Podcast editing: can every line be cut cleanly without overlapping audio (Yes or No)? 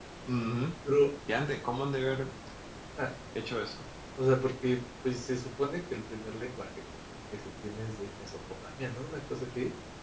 Yes